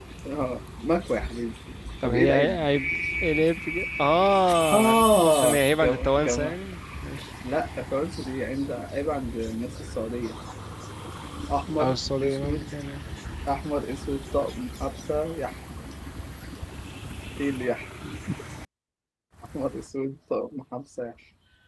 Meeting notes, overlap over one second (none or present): present